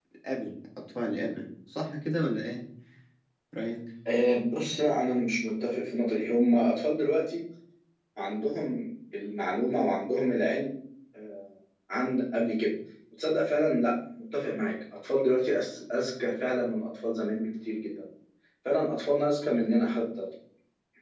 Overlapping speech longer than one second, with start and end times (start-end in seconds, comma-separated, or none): none